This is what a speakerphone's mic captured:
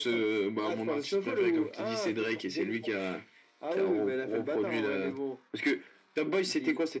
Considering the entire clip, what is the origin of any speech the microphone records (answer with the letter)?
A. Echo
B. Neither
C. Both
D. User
A